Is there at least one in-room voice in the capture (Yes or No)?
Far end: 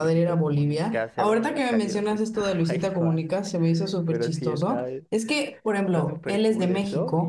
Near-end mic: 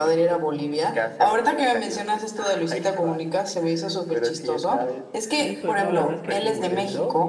Yes